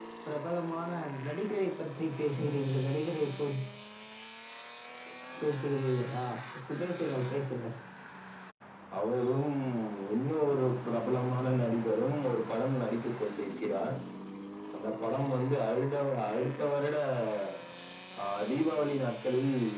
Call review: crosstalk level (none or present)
none